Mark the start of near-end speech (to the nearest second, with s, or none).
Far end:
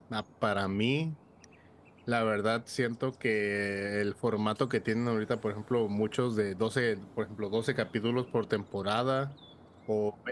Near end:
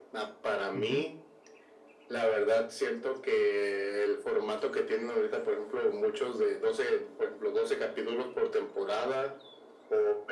1 s